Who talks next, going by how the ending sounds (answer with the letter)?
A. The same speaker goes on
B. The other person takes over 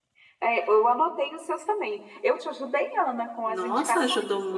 B